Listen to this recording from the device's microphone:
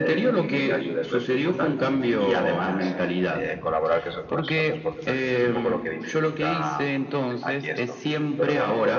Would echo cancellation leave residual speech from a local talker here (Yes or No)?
Yes